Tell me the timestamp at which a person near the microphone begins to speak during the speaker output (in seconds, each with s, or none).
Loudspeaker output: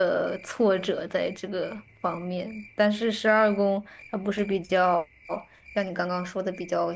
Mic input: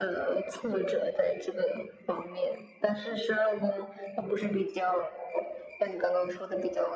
none